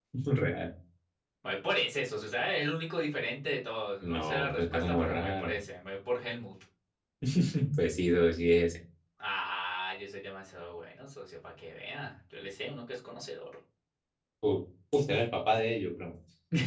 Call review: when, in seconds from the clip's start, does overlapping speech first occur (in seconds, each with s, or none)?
4.0 s